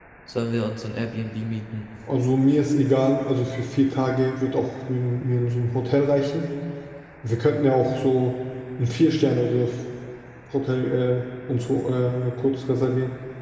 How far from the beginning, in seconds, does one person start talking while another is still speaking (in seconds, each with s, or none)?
none